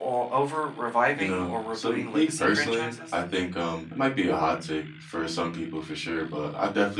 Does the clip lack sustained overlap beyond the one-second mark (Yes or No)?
No